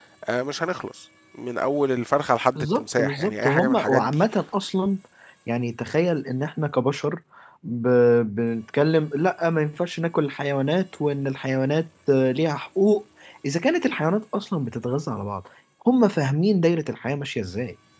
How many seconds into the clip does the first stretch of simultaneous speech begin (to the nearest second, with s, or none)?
3 s